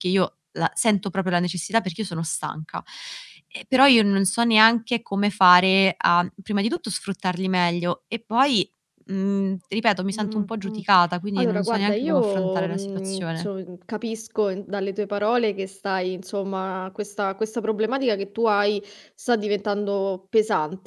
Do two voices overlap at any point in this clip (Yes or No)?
Yes